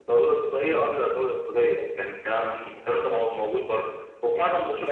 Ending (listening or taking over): listening